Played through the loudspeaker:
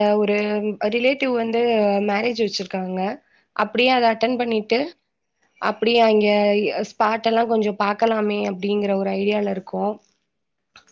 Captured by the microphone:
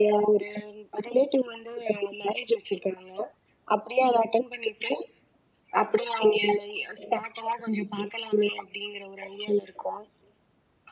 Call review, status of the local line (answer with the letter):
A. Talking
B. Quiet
B